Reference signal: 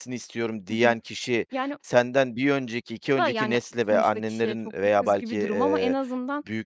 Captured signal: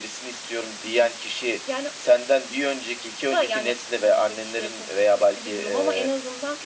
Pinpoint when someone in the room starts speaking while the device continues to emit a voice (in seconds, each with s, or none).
none